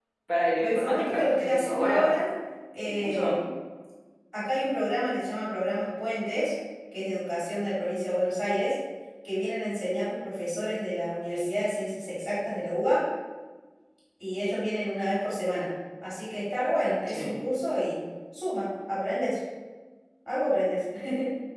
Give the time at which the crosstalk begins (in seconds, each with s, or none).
0.6 s